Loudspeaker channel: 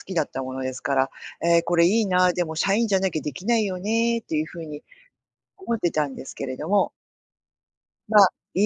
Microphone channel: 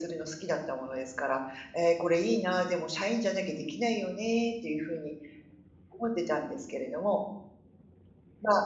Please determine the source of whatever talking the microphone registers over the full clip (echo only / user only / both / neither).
echo only